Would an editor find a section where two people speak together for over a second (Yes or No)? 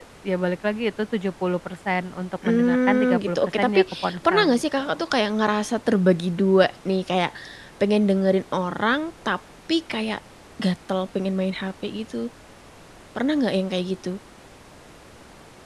Yes